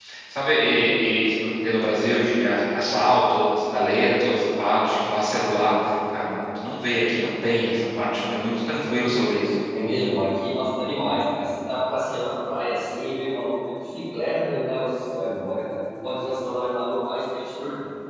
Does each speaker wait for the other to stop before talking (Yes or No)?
Yes